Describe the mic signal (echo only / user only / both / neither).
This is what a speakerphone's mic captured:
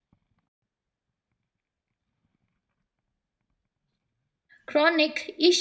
user only